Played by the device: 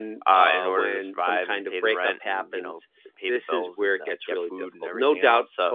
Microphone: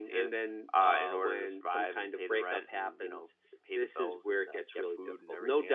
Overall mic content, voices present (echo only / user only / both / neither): echo only